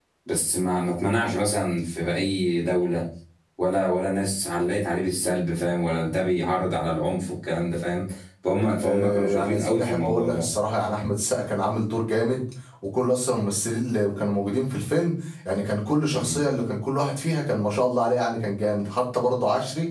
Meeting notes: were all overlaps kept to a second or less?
No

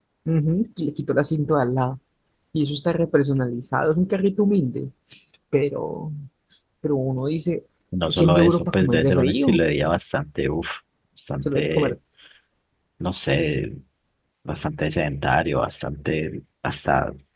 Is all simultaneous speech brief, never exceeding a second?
No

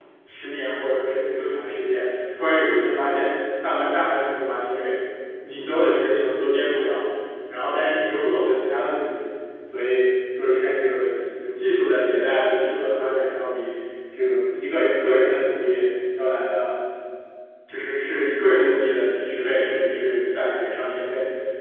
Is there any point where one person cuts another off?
No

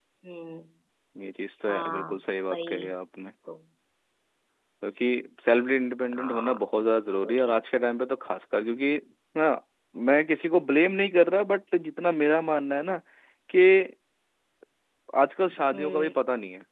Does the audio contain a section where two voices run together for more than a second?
No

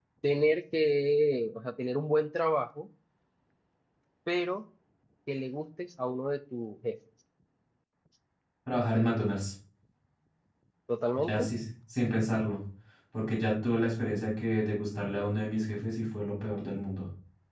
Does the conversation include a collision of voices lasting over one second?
No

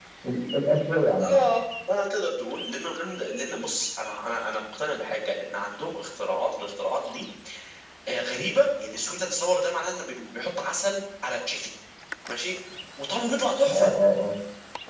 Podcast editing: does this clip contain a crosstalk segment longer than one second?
No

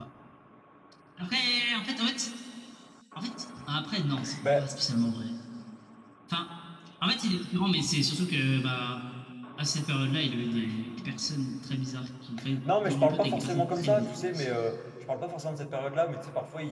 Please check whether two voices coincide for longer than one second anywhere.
Yes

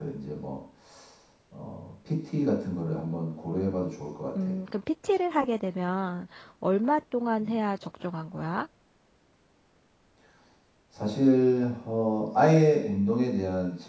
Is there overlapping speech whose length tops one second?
No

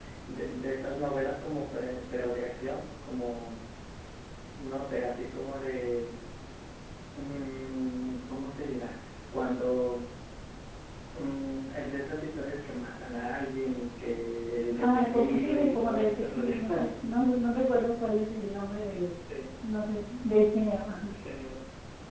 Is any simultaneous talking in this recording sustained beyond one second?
Yes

